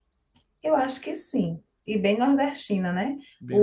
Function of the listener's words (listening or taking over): listening